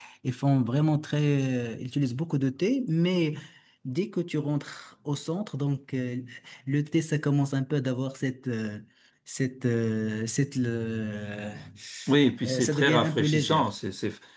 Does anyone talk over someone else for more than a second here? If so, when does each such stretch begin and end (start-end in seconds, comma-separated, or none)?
12.4-13.7